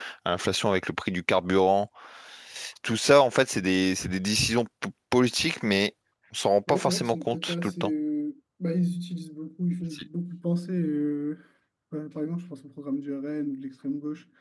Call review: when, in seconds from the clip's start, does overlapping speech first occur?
7 s

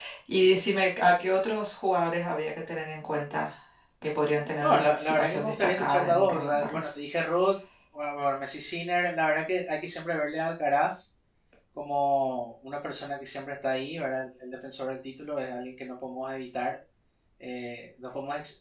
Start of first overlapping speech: 5 s

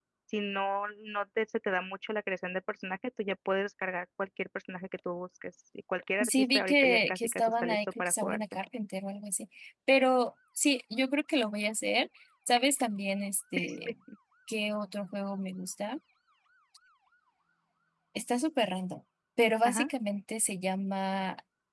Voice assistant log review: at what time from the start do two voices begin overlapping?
6 s

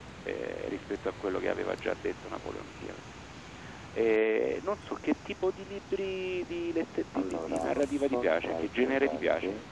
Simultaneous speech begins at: 7 s

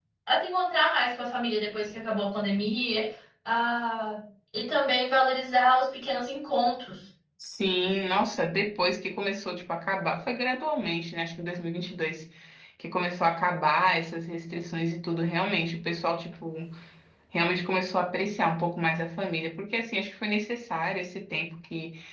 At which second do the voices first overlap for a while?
none

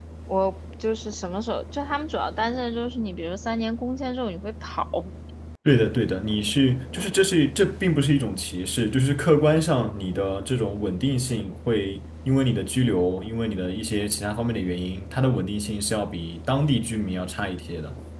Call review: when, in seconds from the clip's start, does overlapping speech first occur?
none

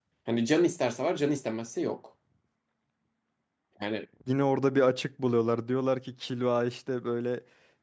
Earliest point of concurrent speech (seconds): none

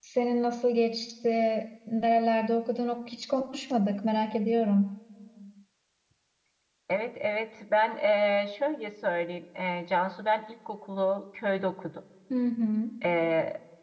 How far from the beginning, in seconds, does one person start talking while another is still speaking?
none

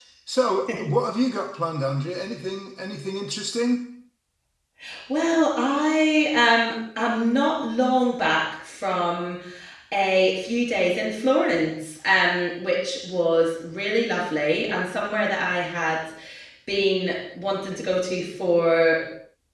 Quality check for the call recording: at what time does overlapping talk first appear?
none

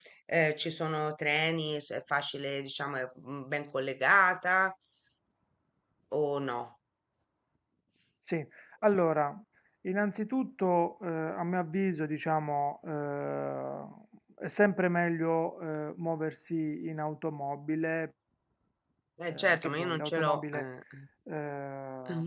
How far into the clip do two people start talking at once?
19 s

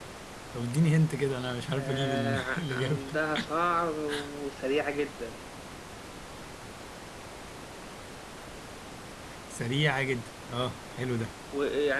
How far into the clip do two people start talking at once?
2 s

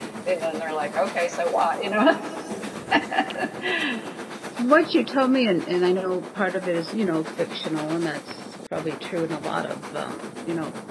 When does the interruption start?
none

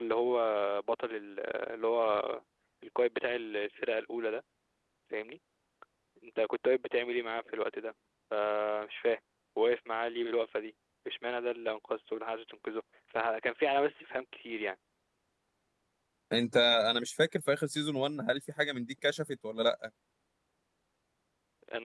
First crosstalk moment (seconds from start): none

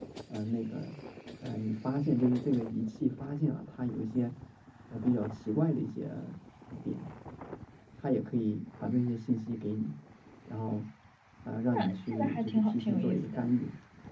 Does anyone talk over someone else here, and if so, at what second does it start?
12 s

